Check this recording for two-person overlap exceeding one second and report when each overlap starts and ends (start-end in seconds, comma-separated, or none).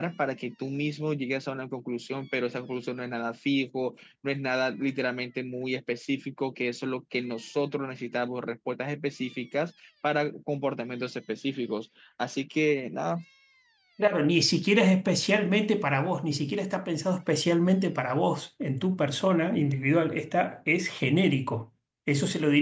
none